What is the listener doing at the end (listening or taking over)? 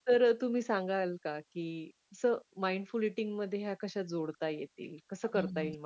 taking over